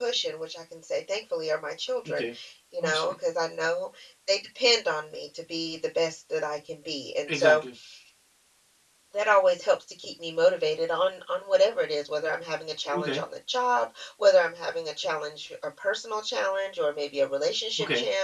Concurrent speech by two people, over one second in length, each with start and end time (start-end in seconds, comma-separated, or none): none